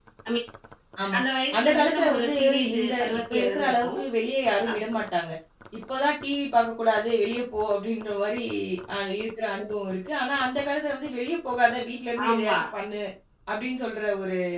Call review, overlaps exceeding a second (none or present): present